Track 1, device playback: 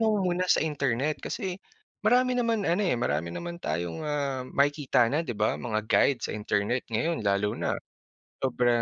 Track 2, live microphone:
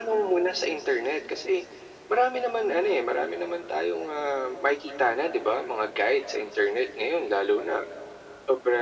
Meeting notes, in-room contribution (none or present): none